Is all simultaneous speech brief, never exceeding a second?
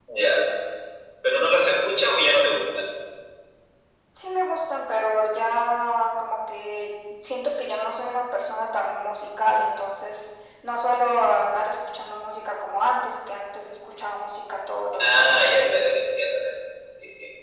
Yes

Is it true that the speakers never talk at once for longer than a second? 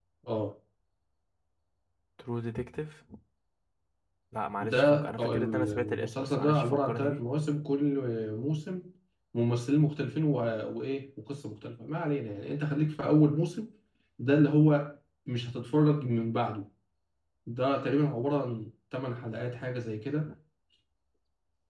No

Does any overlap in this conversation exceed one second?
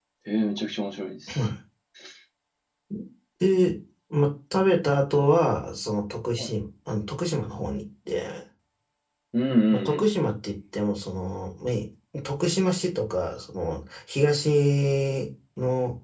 No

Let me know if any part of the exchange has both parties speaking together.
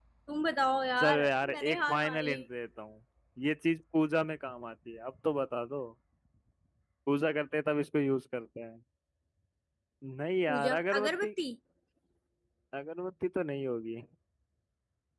Yes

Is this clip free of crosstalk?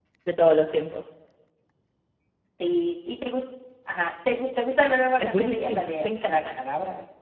No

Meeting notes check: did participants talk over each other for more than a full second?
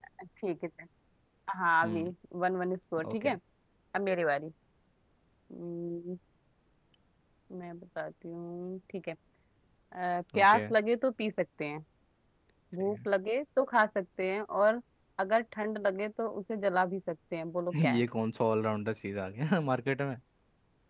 No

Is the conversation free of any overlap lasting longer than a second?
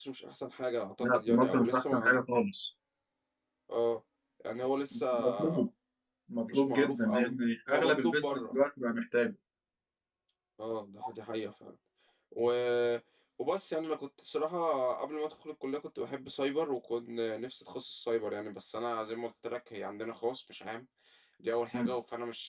No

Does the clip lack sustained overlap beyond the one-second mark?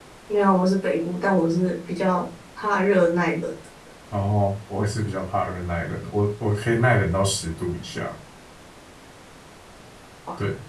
Yes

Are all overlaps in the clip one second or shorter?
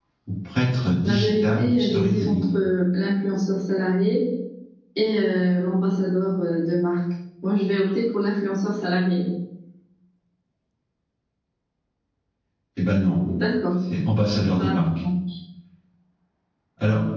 No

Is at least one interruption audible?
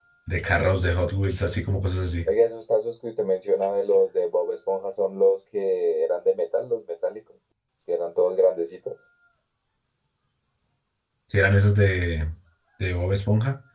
No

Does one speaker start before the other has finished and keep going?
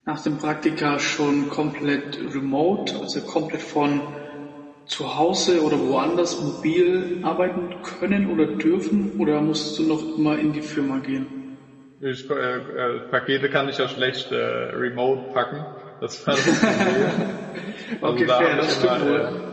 Yes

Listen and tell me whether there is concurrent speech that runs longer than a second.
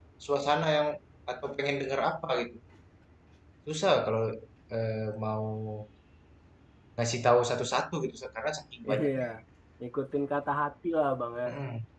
No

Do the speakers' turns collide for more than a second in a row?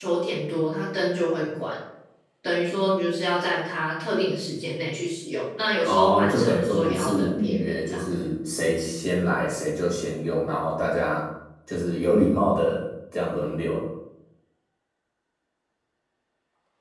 Yes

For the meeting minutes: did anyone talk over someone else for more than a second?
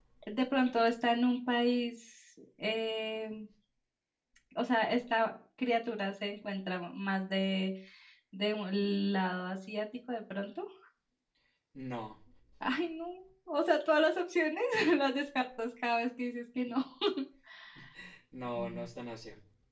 No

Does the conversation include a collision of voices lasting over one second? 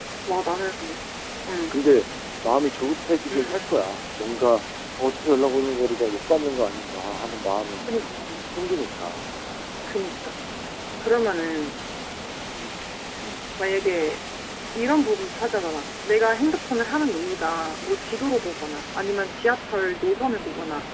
No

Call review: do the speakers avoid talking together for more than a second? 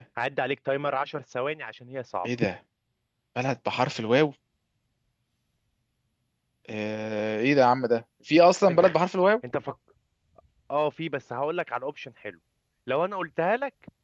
Yes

